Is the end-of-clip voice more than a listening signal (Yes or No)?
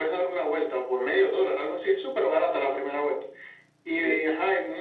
No